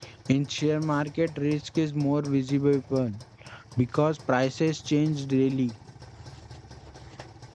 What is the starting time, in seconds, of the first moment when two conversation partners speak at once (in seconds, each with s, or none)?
none